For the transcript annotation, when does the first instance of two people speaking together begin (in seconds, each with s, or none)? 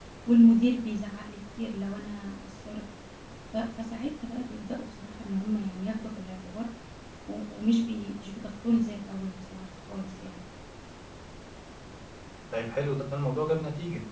none